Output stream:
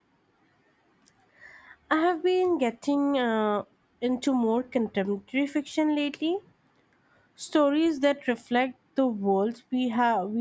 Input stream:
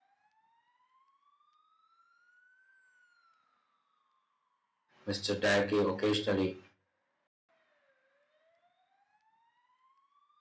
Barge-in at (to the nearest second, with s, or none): 5 s